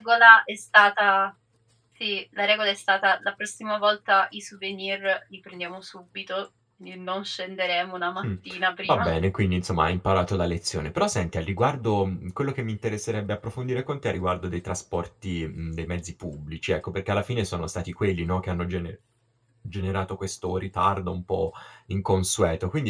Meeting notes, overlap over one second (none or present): none